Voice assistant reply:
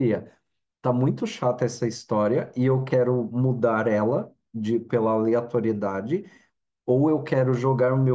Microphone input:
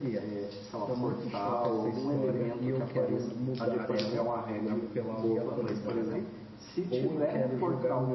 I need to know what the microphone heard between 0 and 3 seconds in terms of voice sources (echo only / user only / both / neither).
both